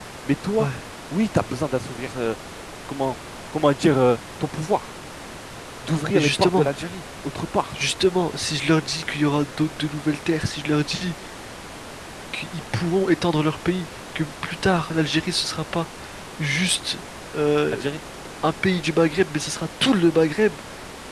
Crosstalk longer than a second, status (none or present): none